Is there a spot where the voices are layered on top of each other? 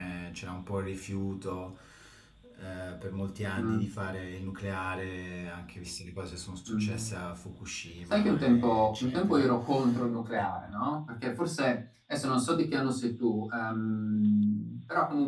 Yes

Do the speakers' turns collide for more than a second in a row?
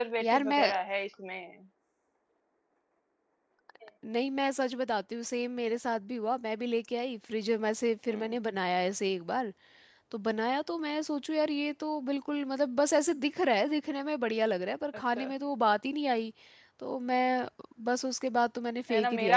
No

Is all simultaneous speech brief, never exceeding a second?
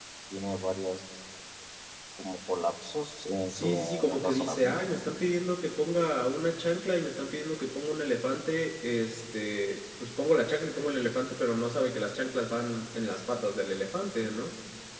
No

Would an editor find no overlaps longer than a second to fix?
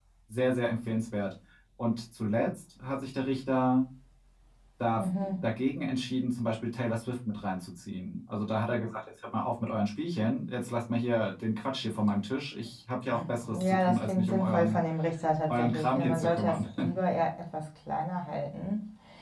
No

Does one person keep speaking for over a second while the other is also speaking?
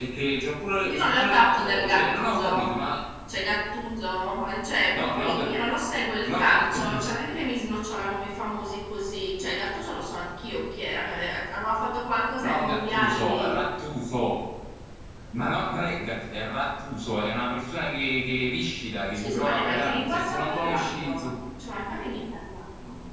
Yes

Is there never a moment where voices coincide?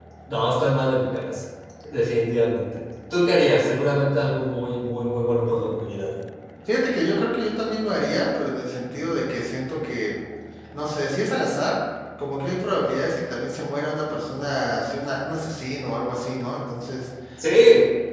Yes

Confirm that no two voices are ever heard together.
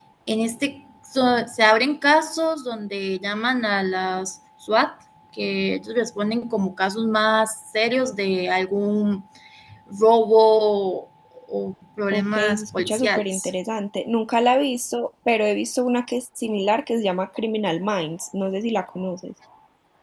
No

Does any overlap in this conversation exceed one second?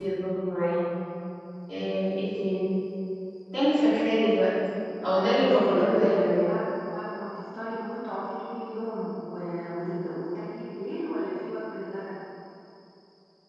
Yes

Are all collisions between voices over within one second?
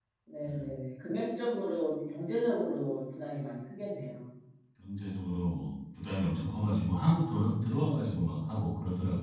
Yes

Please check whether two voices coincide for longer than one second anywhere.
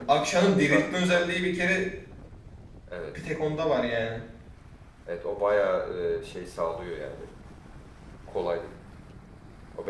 Yes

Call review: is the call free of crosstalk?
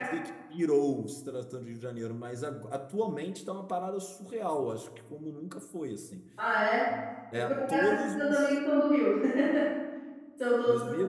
No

